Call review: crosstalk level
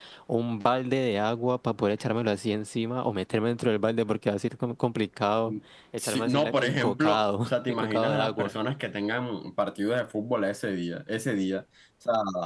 present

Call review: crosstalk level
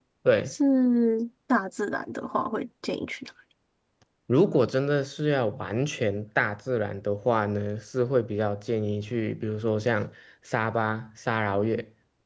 none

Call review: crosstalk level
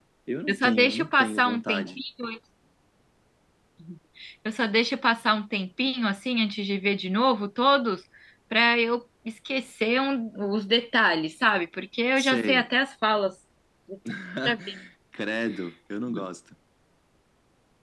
present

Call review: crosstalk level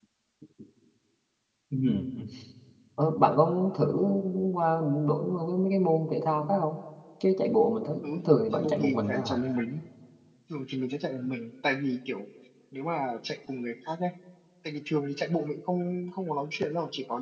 present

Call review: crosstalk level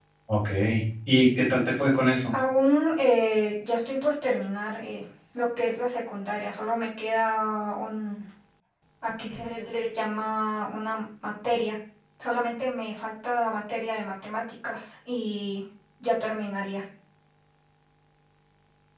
none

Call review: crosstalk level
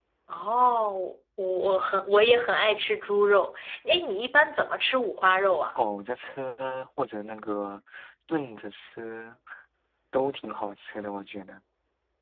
none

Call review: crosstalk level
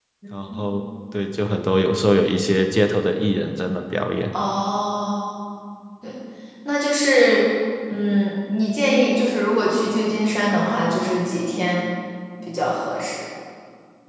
none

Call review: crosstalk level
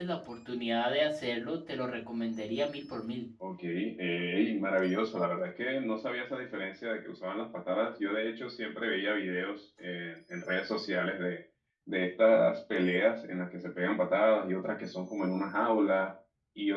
none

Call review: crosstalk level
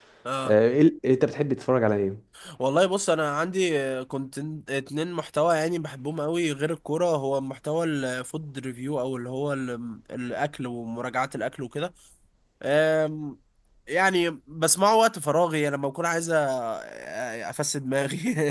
none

